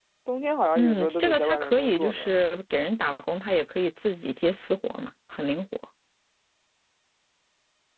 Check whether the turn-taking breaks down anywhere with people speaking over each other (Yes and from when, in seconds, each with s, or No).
Yes, from 0.8 s